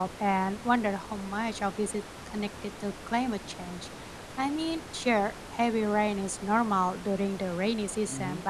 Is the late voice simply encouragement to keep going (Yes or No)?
Yes